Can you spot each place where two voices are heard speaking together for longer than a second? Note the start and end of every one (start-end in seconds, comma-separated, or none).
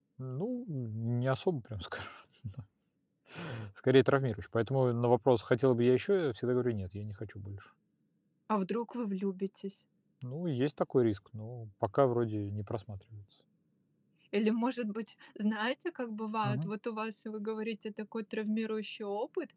none